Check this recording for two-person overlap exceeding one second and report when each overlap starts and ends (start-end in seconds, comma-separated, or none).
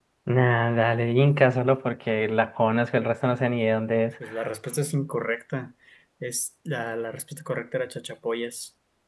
none